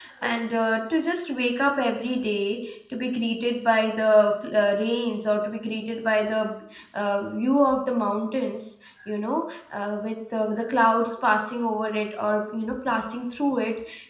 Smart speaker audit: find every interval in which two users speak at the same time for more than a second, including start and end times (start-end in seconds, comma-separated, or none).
none